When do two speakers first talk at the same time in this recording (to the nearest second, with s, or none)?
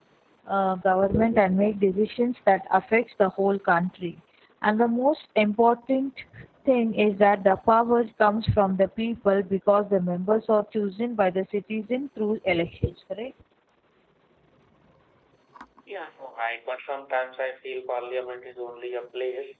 none